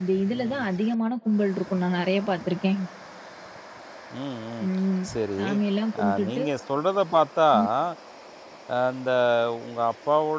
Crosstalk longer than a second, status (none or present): none